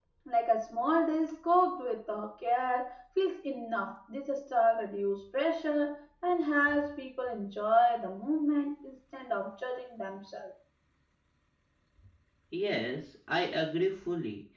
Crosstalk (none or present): none